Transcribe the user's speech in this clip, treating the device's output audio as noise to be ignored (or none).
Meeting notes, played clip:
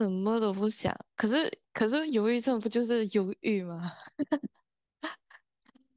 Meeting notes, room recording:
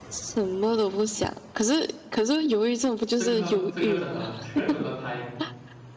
这个，这个真的，这个真的太，